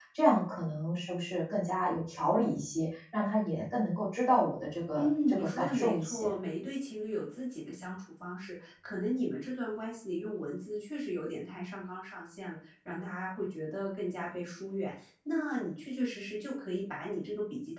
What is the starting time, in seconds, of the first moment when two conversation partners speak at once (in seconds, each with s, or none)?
5.0 s